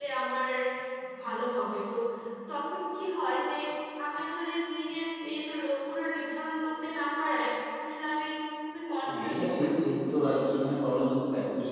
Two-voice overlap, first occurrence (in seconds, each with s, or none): 9.1 s